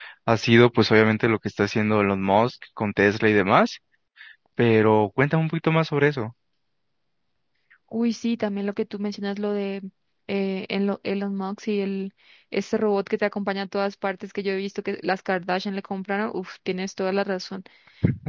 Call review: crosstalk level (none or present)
none